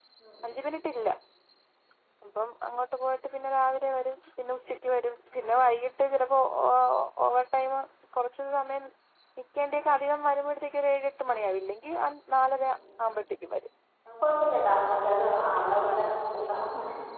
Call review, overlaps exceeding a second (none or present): none